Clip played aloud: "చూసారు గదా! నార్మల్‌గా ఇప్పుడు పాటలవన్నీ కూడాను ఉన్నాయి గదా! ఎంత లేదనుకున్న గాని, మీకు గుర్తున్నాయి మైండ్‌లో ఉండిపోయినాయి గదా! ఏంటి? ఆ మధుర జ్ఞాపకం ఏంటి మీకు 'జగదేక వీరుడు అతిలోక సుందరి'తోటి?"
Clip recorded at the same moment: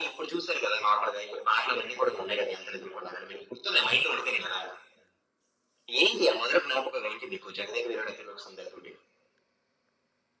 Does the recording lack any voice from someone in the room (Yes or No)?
Yes